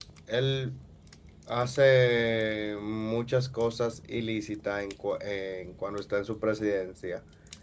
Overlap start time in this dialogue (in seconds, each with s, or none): none